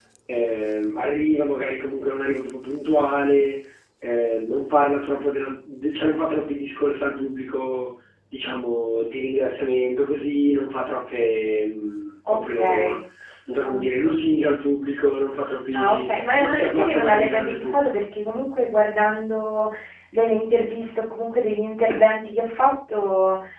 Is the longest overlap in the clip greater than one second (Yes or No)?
Yes